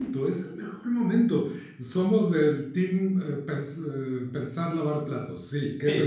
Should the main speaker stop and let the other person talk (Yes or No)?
Yes